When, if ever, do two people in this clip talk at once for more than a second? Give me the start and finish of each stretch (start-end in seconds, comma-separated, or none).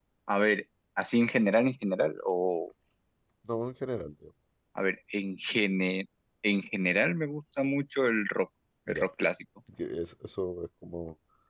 none